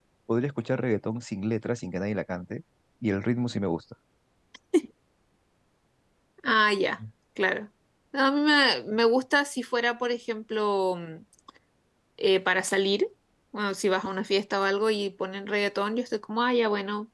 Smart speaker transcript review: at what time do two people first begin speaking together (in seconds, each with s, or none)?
none